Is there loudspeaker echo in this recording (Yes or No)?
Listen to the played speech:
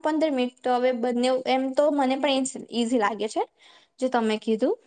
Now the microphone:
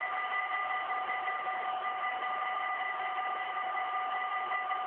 No